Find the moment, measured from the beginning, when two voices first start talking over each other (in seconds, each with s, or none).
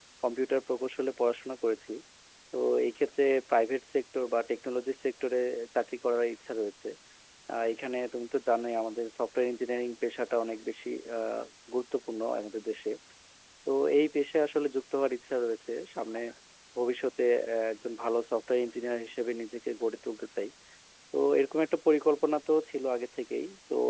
none